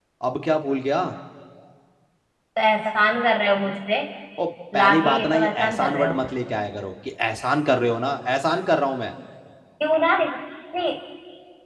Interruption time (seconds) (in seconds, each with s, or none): 4.8 s